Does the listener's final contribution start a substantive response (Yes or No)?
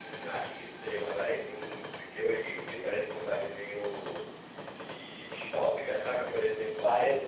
No